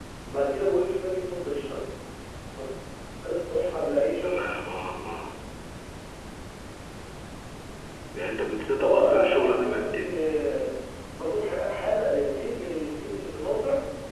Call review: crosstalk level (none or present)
present